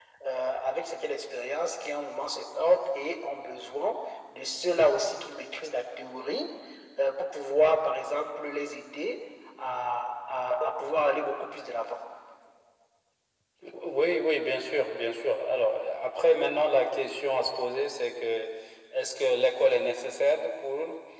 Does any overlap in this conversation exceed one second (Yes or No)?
No